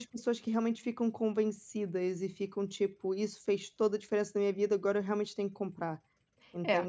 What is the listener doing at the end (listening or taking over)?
taking over